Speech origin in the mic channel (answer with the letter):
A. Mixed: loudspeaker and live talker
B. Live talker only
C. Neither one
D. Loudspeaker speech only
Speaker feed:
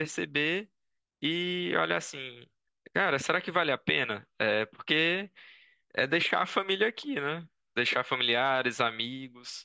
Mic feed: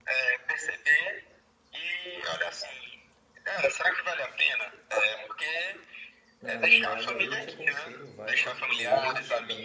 A